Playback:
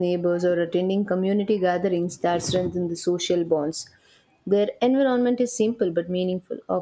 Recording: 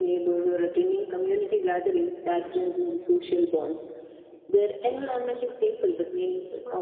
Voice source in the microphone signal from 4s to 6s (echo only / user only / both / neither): both